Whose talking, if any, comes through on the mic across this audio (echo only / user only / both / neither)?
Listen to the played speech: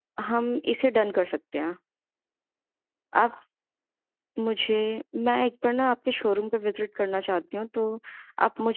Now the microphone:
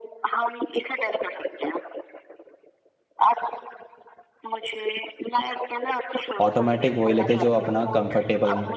both